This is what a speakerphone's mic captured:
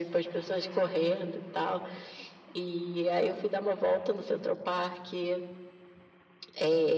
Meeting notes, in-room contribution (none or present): none